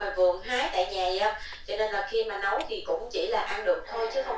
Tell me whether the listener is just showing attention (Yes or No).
No